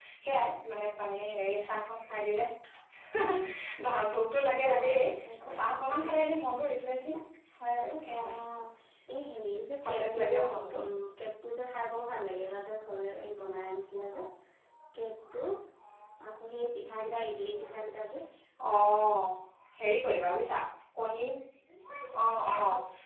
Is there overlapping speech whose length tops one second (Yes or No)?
Yes